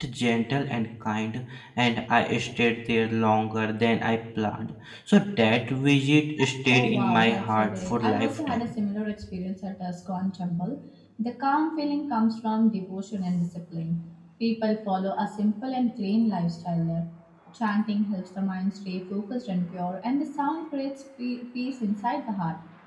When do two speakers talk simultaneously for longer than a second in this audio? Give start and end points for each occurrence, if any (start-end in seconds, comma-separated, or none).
6.7-8.7